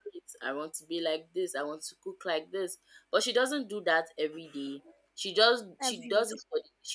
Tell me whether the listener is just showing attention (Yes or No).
Yes